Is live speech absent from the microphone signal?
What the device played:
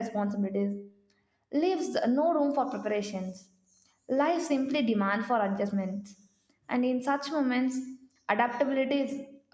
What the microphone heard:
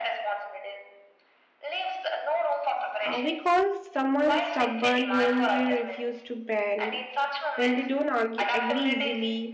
No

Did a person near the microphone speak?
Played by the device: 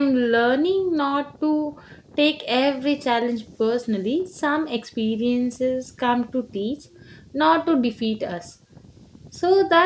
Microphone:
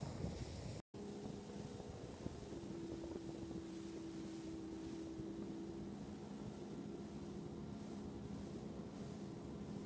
No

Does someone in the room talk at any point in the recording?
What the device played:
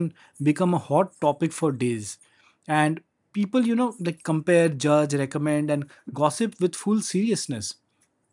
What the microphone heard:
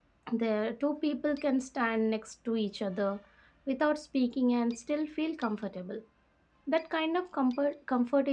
Yes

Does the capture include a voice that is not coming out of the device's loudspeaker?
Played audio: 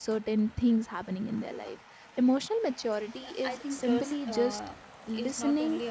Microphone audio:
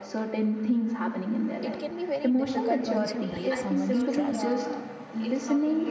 Yes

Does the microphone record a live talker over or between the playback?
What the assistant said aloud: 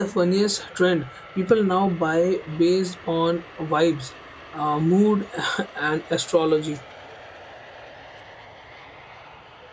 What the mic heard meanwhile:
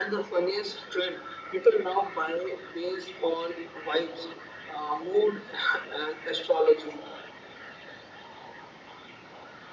No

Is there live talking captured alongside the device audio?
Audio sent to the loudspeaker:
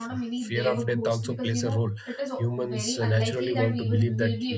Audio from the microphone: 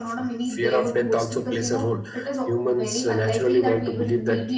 No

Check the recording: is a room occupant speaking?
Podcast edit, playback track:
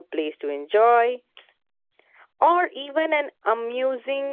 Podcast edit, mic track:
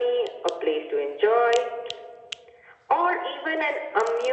No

